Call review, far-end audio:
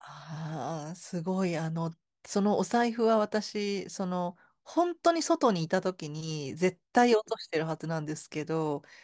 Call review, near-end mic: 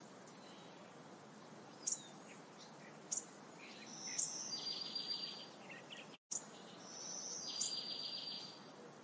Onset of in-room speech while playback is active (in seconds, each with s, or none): none